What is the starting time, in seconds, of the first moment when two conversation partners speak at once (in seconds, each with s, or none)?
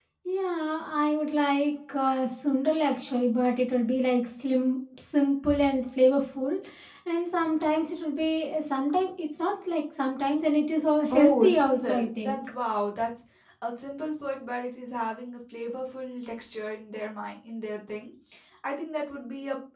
11.1 s